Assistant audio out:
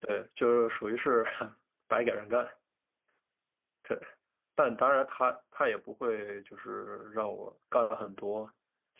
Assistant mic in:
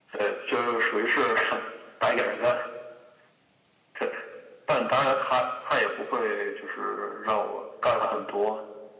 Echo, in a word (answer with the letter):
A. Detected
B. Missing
A